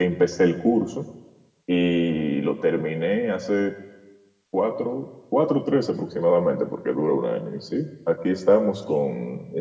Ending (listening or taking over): listening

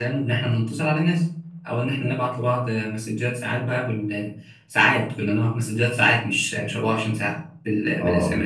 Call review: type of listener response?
listening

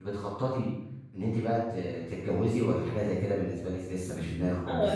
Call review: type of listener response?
taking over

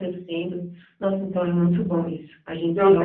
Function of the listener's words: taking over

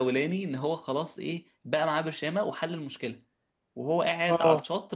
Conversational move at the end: listening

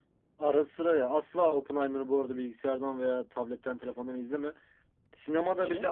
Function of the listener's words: listening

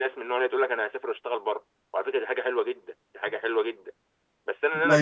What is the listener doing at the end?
listening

